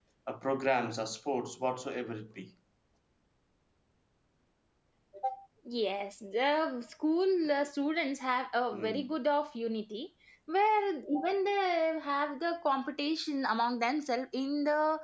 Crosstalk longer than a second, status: none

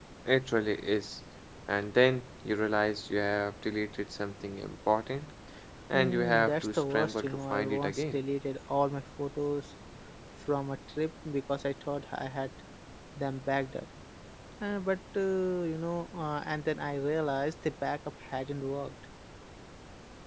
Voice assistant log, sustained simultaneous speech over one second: present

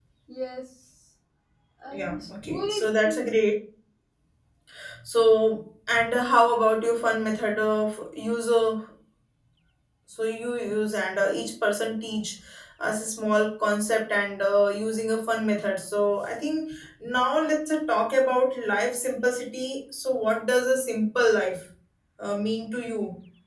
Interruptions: present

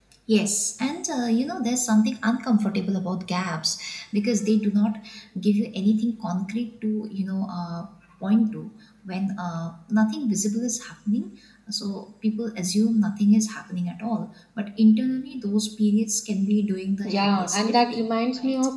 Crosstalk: present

